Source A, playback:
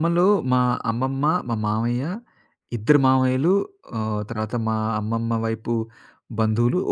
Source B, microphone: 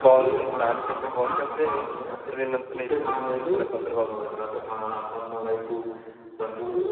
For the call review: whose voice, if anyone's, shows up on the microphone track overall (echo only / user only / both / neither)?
both